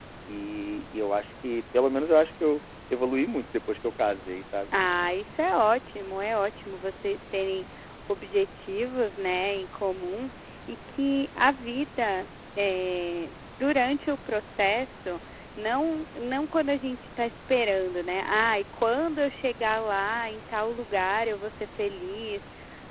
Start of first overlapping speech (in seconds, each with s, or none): none